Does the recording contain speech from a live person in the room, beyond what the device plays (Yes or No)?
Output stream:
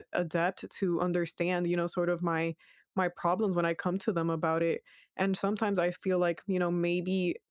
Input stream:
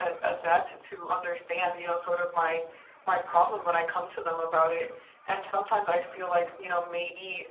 No